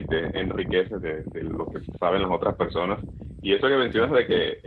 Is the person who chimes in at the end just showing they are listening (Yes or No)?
Yes